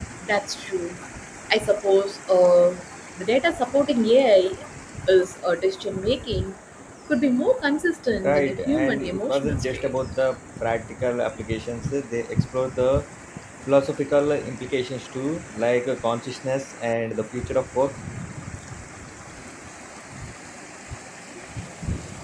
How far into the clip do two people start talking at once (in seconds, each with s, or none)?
8.2 s